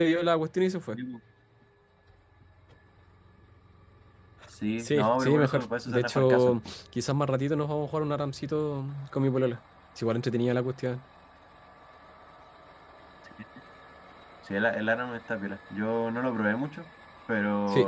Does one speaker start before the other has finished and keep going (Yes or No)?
Yes